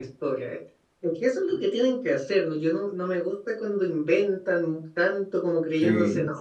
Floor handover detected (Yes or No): No